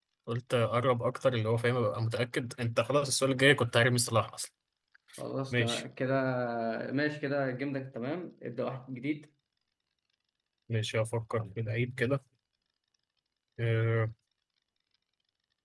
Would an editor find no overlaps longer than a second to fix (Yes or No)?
Yes